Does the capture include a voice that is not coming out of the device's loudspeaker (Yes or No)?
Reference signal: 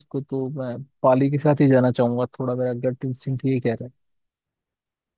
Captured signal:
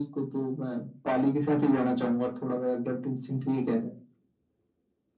No